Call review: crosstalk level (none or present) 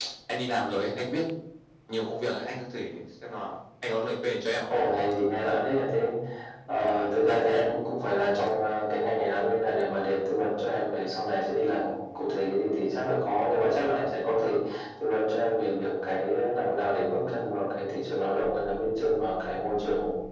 none